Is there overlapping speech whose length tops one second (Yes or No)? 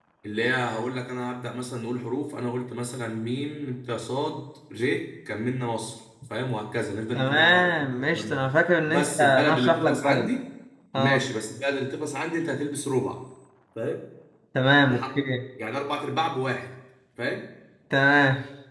Yes